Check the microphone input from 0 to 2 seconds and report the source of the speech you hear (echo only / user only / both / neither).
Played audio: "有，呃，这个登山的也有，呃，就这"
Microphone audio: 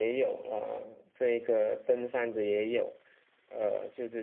echo only